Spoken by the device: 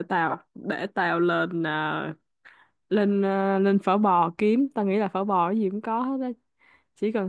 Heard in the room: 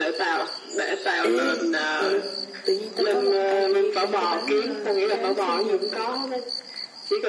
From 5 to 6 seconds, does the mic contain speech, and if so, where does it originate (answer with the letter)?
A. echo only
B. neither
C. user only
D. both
D